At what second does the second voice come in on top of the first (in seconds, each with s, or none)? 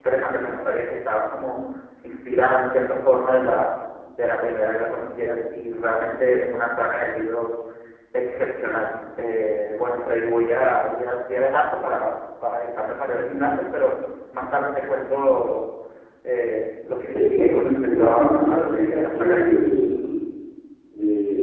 17.1 s